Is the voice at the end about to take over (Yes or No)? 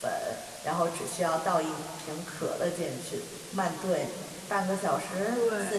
No